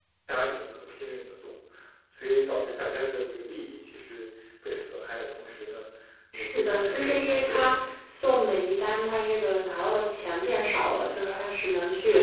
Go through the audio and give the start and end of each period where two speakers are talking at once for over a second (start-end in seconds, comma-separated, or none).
6.3-7.7